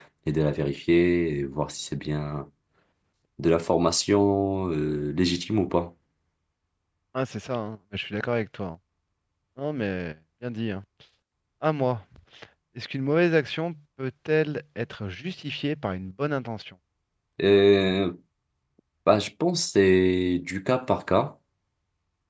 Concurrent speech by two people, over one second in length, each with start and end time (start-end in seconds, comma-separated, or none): none